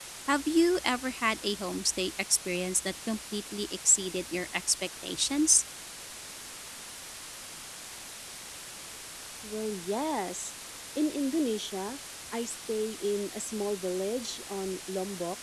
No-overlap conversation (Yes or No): Yes